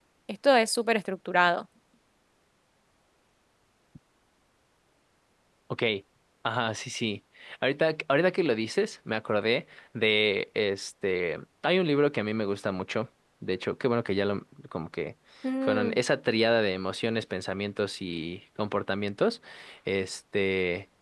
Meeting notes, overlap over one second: none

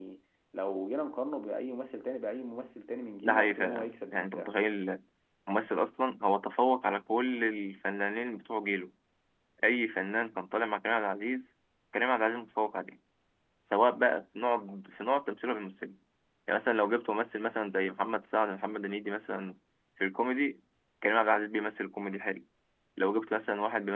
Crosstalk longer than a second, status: present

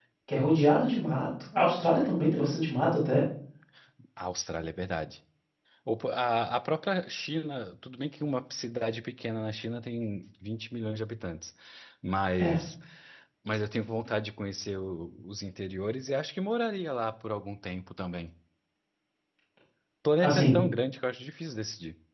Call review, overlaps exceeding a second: none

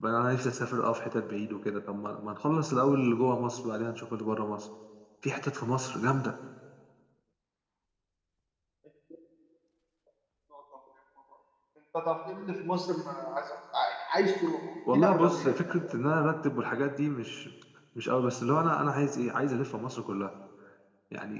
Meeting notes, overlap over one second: present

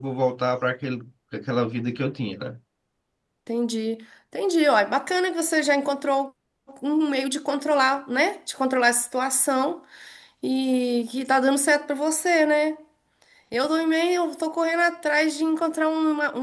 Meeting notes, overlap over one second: none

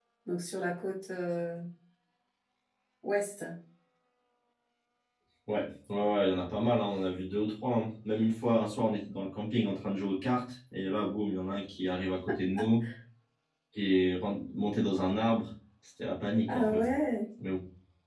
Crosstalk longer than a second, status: none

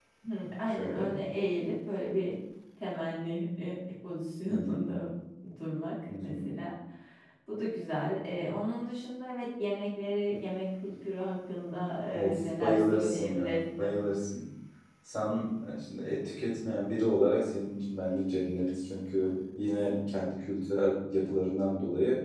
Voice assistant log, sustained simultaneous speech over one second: present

